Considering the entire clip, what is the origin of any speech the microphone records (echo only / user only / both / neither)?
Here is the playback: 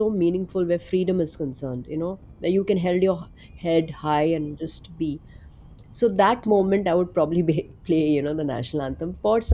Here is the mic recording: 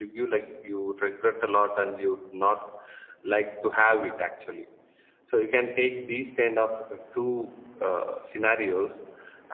user only